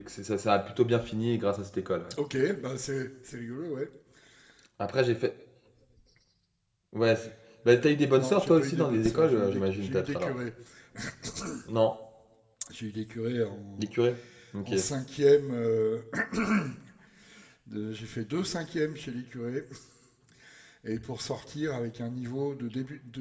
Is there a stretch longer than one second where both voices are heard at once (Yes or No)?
Yes